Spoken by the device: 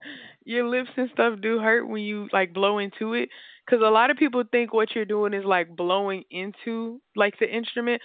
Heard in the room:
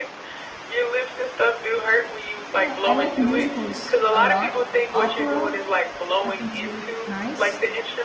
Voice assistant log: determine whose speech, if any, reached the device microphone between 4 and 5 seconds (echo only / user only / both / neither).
both